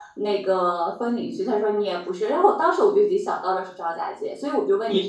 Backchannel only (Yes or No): No